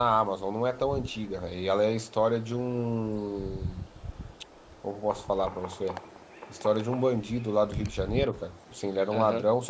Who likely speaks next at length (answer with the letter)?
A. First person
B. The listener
A